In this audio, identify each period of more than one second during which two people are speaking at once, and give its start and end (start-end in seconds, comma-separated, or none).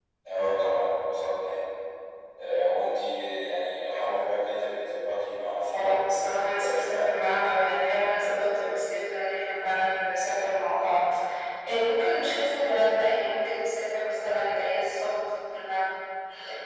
5.7-7.1